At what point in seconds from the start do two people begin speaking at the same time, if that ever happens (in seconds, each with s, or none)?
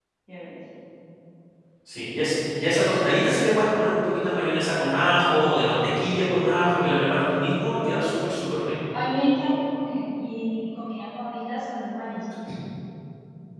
none